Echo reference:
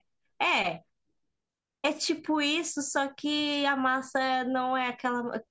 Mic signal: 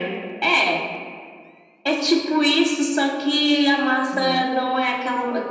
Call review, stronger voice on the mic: echo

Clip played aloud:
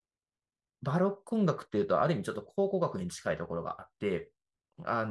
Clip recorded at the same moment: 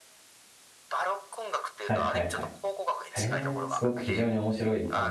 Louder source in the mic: user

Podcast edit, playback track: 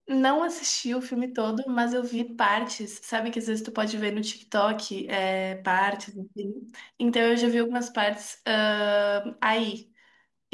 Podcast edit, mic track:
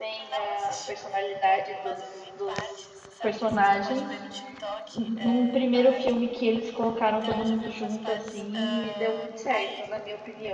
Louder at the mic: user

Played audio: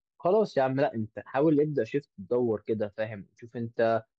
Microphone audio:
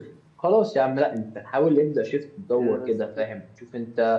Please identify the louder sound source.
echo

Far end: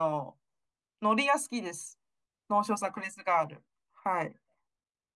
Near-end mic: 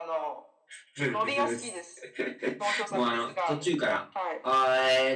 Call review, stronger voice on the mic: user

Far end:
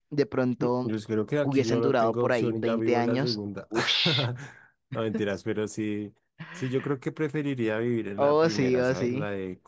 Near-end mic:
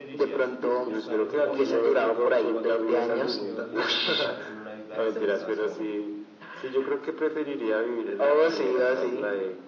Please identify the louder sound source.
echo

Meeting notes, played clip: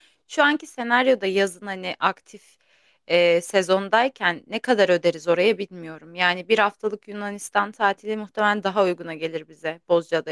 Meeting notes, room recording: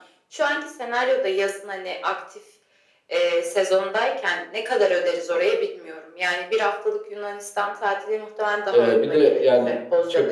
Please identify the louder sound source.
user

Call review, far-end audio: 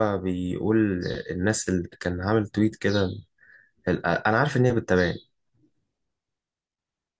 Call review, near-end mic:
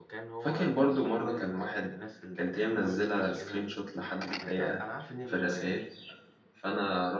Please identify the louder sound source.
user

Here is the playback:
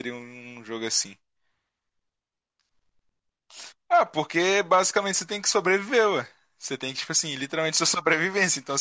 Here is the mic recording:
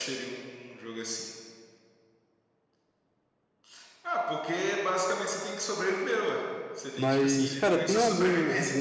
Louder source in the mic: user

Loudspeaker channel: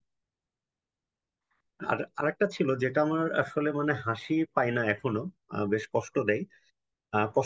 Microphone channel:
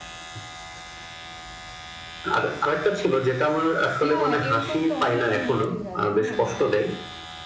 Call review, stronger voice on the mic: echo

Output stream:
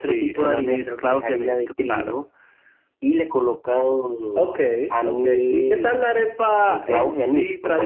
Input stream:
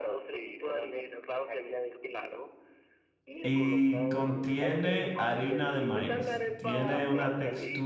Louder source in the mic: user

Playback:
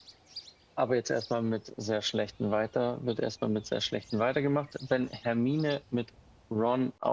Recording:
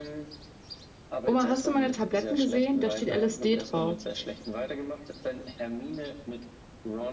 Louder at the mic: user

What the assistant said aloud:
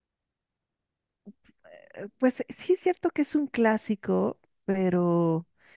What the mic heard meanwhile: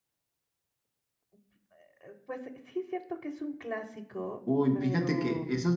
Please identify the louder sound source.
user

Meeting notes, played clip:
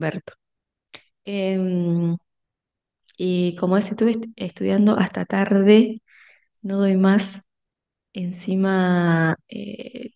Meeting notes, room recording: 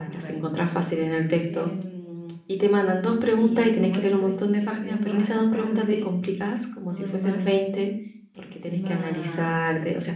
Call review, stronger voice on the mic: user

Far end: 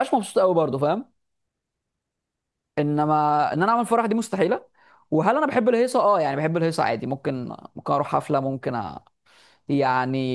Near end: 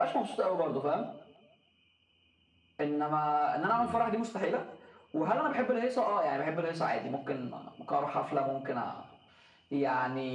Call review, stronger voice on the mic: echo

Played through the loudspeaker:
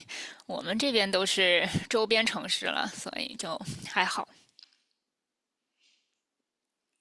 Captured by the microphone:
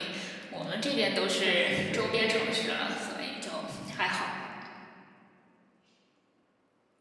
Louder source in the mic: echo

